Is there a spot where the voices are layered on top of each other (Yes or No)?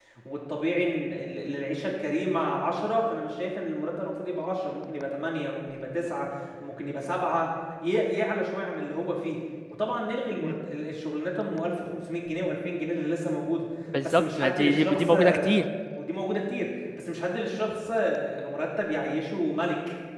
Yes